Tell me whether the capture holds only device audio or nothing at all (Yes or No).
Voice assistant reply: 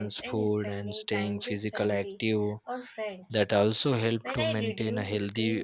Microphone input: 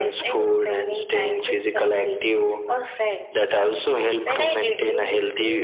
Yes